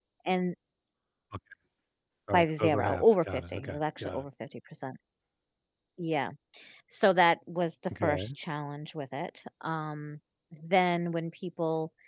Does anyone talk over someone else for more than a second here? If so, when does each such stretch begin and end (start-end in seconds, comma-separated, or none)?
2.3-4.2